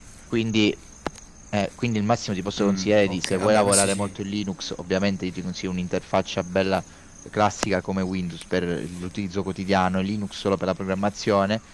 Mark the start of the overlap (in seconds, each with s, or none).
2.6 s